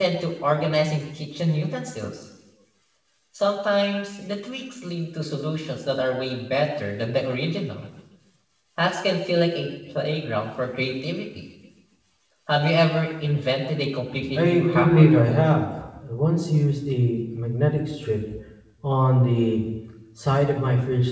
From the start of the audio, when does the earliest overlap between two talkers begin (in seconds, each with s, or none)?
14.4 s